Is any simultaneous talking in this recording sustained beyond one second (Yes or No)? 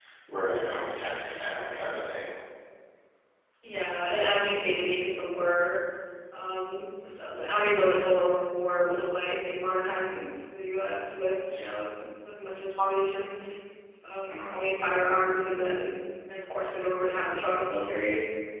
No